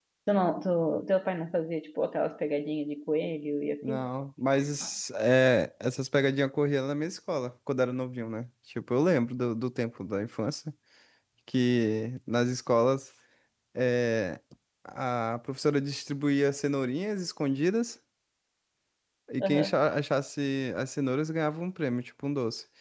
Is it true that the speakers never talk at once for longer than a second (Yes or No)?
Yes